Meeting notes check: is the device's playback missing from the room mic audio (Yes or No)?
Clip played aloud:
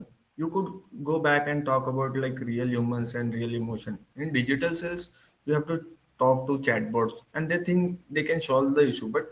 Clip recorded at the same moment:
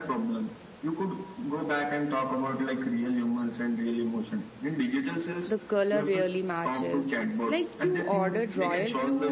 No